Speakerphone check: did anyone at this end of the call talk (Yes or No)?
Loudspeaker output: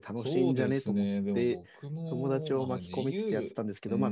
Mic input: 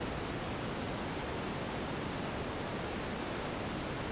No